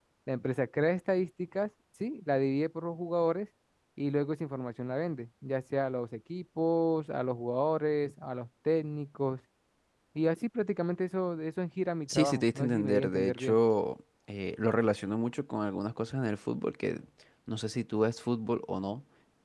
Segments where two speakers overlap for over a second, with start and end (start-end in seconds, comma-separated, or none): 12.1-13.6